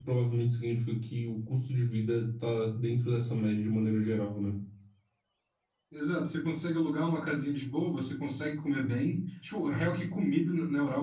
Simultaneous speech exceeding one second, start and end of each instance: none

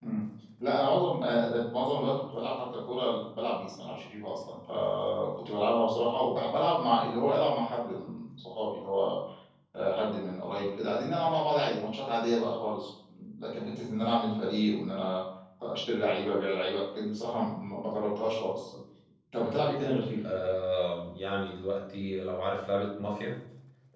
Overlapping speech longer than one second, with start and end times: none

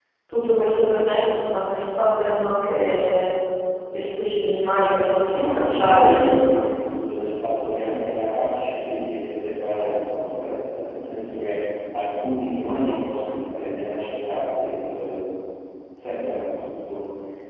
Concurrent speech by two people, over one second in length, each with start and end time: 5.3-6.6

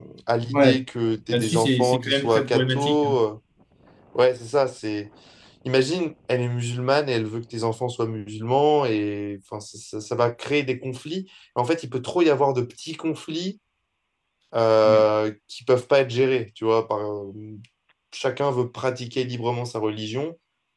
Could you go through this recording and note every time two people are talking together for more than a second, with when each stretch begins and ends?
1.3-3.2

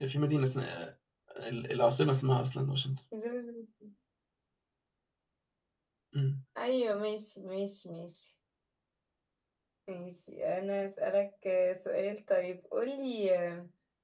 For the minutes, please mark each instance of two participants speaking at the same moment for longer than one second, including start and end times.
none

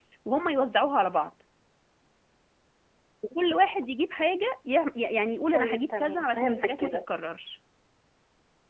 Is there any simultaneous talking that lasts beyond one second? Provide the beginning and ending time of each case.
5.5-7.0

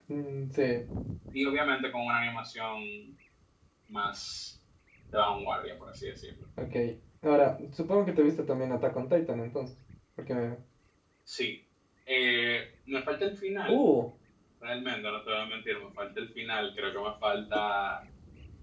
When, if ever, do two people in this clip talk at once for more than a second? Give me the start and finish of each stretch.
none

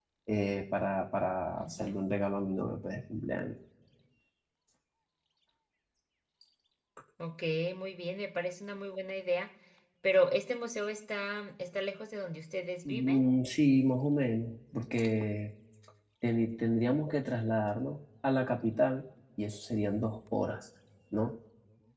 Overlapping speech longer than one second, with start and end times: none

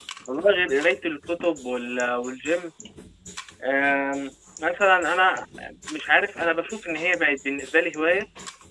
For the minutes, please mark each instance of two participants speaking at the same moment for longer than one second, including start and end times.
none

